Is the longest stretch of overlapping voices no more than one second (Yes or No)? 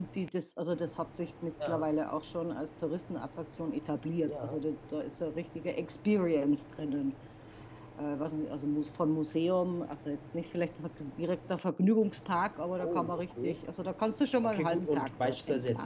No